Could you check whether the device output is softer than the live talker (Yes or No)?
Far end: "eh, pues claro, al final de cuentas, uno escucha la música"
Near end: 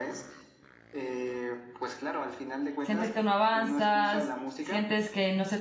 Yes